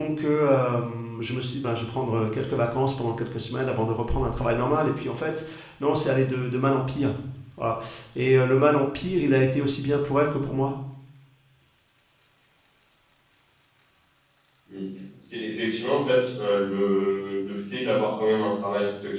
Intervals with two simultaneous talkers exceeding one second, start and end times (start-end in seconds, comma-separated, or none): none